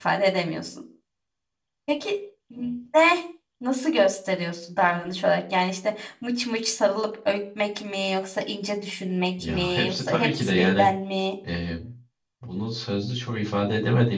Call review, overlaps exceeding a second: present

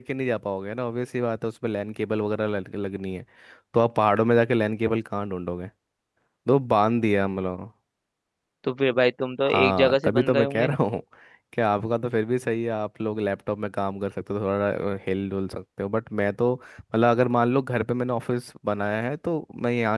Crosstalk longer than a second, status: present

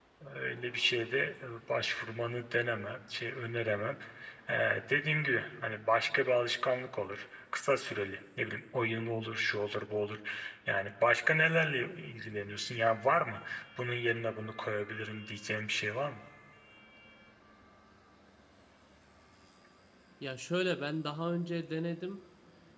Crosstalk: none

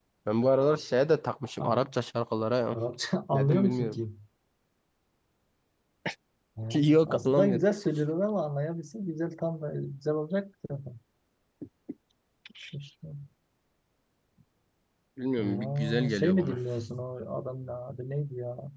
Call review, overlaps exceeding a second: present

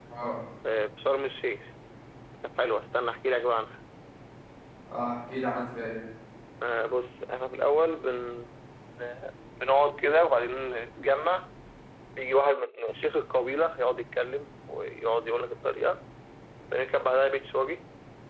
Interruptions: none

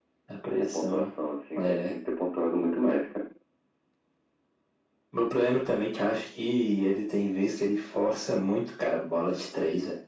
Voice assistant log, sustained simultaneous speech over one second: none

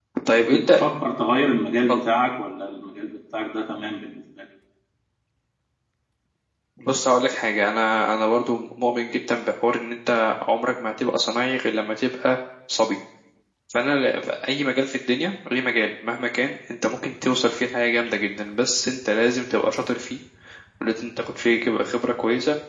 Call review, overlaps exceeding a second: none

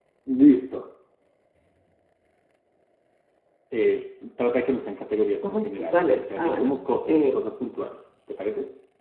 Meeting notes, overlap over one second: present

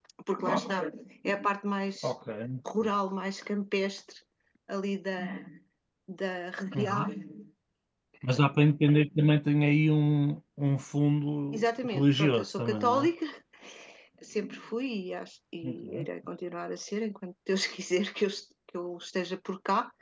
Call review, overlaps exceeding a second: present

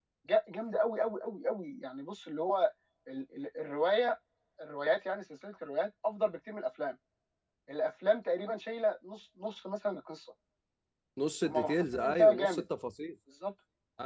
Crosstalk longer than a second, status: present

